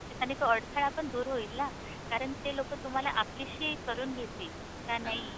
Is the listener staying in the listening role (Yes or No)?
Yes